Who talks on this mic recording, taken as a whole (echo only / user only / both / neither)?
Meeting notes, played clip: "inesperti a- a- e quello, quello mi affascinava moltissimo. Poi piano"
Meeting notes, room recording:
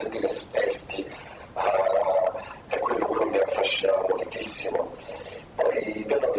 echo only